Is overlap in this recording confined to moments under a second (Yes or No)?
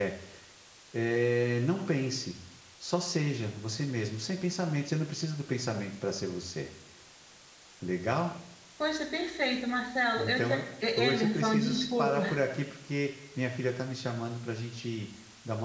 No